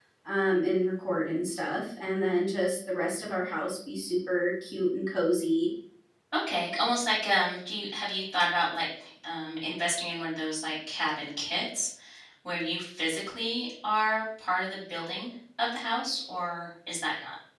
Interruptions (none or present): none